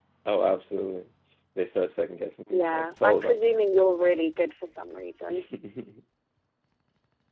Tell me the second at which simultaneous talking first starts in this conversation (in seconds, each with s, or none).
2.5 s